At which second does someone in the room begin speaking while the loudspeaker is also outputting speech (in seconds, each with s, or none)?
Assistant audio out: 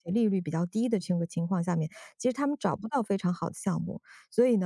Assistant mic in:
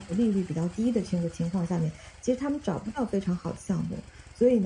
none